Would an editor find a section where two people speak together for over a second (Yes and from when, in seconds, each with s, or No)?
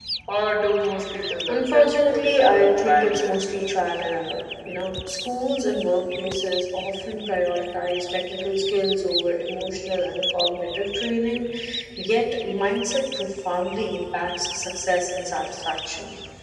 Yes, from 1.5 s